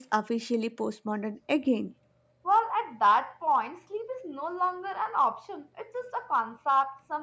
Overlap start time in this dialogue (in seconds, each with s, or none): none